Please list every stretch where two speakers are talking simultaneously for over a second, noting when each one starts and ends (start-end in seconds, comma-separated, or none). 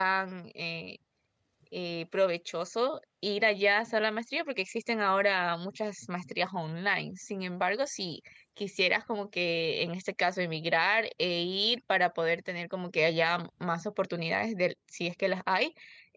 none